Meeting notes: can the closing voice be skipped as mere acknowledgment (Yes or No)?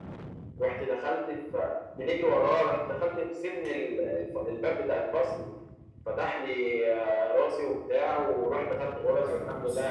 Yes